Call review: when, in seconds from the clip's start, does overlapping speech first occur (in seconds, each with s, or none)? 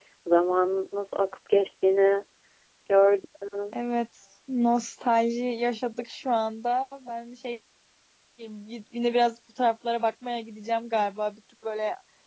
none